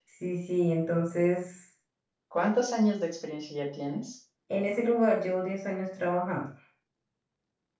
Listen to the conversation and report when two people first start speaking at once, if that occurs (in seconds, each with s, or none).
none